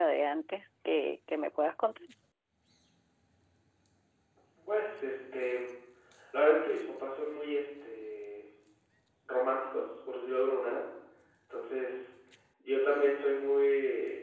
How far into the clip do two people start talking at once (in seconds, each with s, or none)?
none